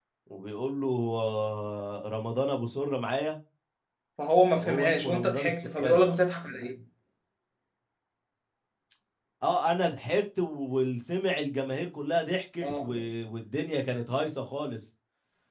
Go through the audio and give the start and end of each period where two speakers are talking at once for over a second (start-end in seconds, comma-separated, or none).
4.6-6.0